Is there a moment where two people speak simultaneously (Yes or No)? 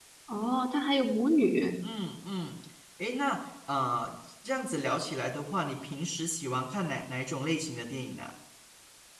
No